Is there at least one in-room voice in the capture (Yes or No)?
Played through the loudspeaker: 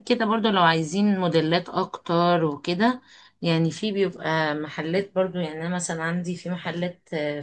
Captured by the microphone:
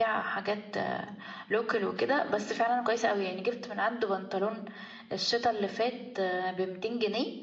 Yes